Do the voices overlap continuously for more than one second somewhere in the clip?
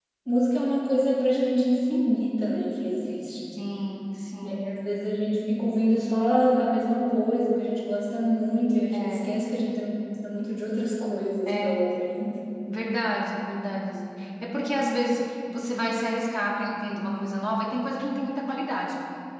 No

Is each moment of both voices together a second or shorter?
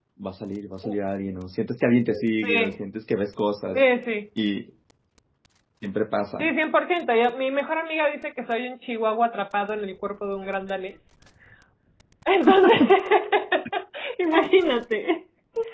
Yes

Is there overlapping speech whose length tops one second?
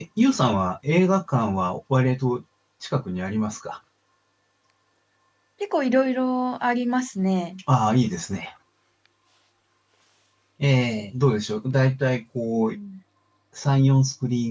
No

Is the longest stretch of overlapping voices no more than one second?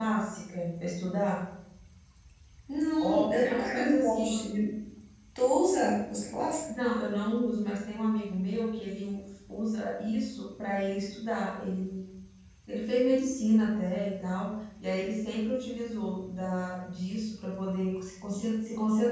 No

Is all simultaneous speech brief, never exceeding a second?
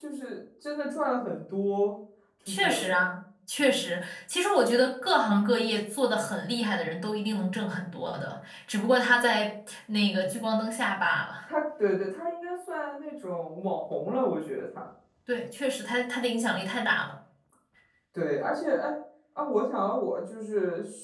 Yes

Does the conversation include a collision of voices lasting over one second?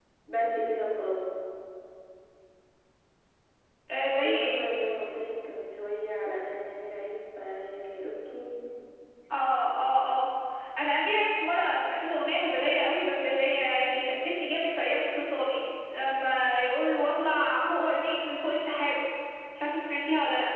No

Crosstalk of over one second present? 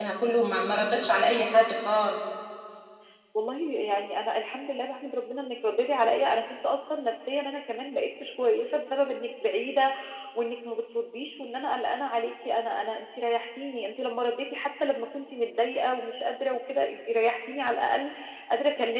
No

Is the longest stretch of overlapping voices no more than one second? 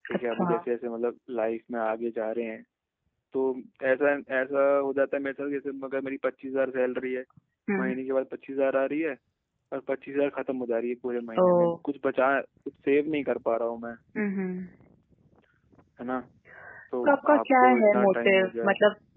No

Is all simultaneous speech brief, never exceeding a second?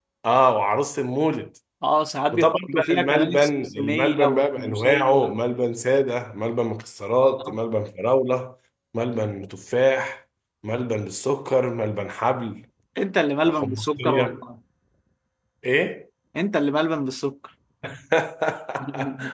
No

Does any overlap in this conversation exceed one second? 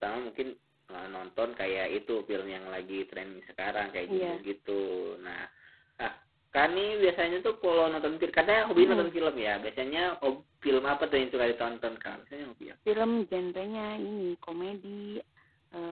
No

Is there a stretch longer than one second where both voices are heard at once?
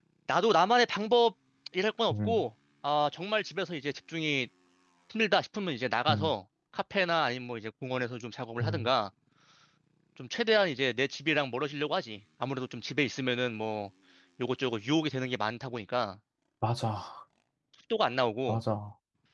No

